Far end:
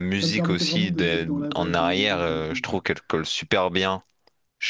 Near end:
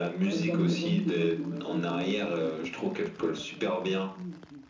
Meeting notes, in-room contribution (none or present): present